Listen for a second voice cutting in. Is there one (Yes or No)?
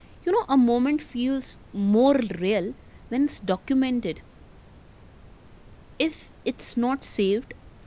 No